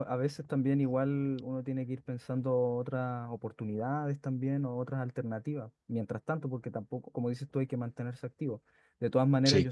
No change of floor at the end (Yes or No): Yes